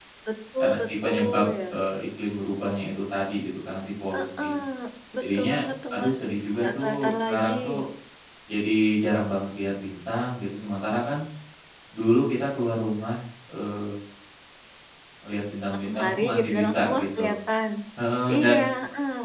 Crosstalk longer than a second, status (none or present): present